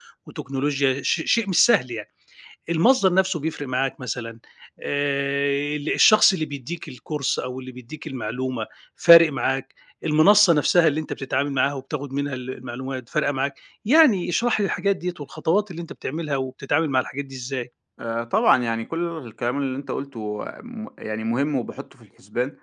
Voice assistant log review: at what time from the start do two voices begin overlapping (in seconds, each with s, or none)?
none